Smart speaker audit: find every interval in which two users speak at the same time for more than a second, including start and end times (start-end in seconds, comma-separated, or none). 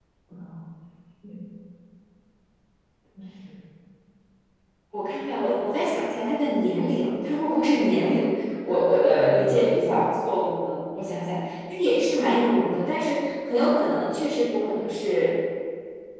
none